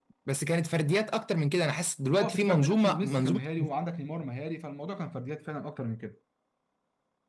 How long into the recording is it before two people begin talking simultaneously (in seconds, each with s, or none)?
2.2 s